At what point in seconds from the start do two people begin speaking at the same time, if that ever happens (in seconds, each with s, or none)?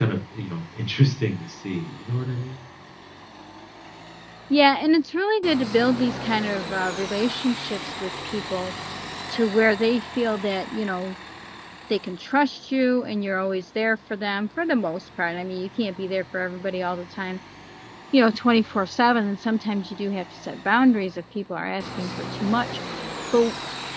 none